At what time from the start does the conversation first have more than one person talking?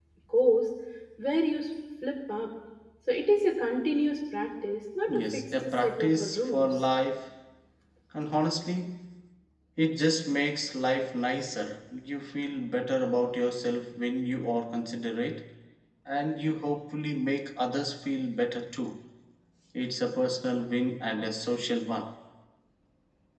5.1 s

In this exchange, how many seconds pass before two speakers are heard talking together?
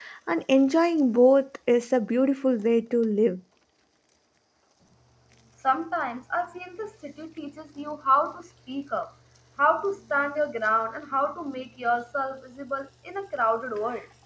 none

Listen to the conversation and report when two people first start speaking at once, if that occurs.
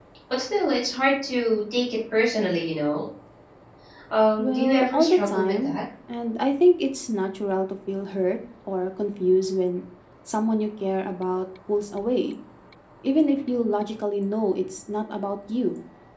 4.4 s

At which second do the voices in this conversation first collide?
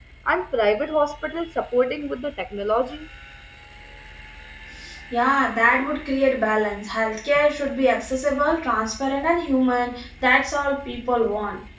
none

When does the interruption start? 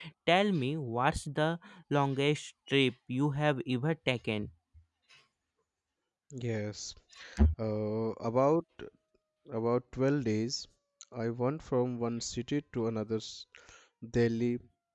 none

